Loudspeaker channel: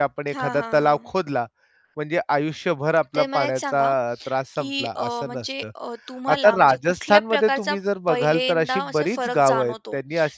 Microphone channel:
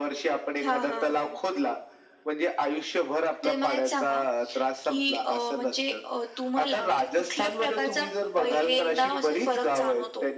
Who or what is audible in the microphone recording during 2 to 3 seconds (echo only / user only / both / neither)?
echo only